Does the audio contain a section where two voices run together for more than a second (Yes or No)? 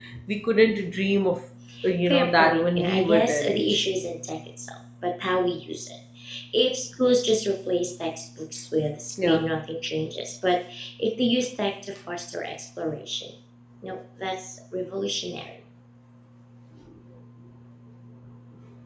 Yes